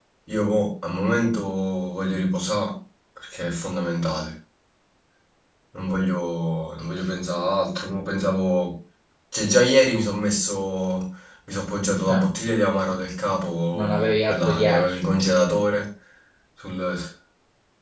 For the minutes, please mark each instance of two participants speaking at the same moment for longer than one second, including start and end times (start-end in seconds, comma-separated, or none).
13.7-15.0